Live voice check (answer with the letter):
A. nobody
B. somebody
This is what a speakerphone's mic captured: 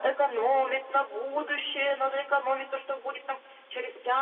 A